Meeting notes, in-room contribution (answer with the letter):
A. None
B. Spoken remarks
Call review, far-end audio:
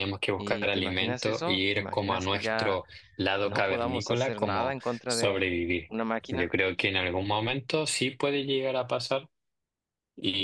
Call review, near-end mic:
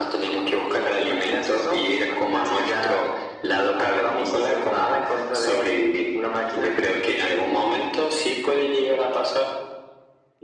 A